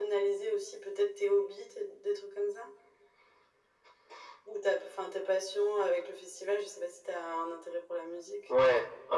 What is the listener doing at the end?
taking over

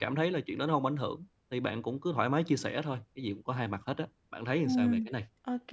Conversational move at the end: taking over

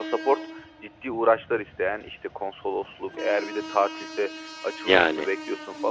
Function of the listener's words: listening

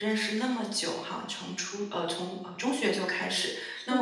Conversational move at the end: listening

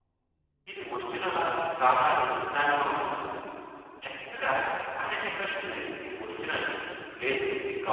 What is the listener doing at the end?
taking over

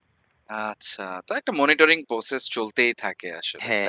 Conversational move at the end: taking over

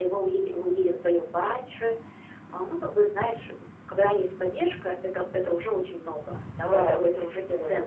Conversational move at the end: taking over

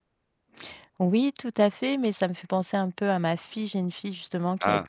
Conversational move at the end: listening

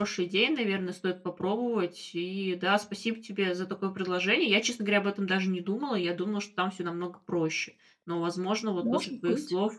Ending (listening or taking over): listening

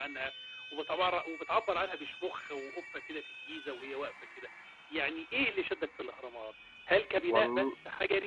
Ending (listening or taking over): listening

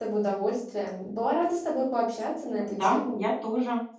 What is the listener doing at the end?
taking over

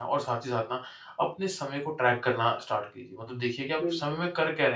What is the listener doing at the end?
listening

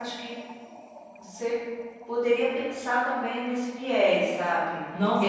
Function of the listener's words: taking over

